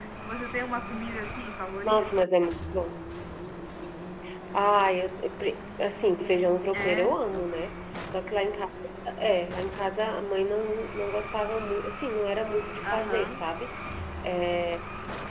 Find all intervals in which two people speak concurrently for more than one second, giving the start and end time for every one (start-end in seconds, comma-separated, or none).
none